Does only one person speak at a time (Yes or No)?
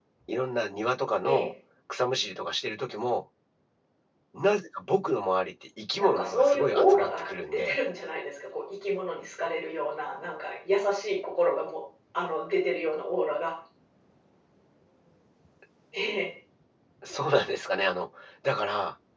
No